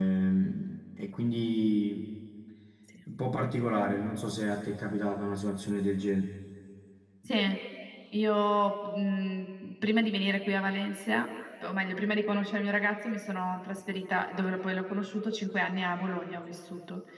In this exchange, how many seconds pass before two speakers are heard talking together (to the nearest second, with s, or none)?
none